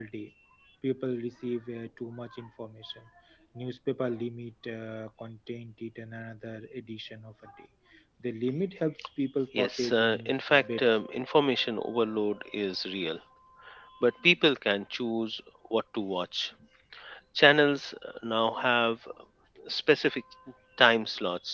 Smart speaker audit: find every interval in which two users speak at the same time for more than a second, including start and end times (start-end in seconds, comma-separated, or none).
9.6-10.9